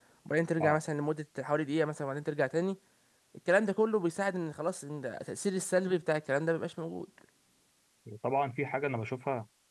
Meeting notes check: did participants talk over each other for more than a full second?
No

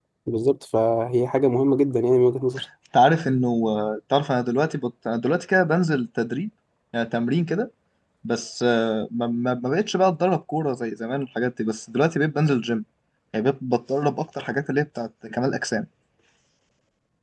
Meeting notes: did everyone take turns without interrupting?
Yes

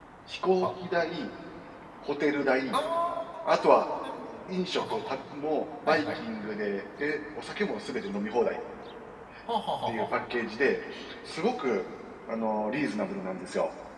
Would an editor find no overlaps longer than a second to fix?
Yes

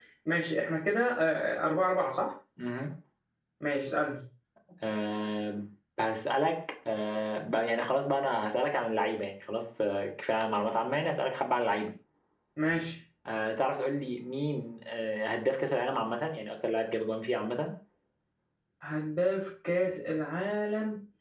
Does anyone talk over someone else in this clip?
No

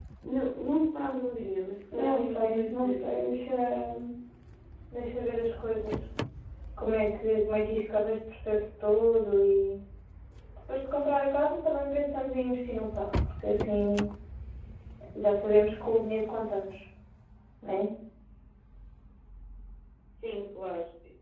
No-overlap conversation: No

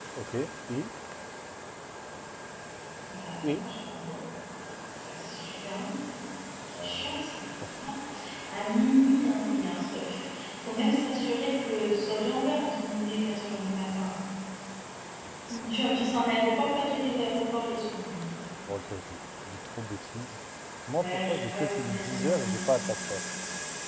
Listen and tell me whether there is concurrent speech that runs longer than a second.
Yes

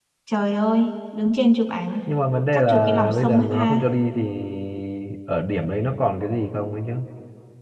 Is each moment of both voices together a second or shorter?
No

